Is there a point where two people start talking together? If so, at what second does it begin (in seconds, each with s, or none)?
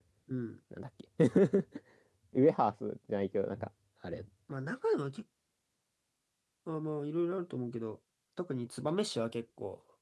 none